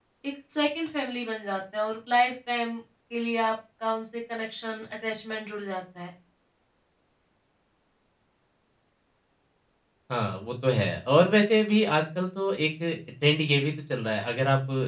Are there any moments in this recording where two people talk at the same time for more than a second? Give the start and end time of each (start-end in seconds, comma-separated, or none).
none